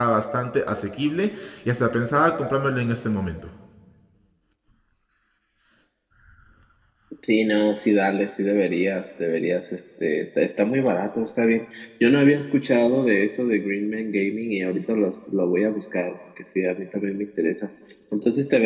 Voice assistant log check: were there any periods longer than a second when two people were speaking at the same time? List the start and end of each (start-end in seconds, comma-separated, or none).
none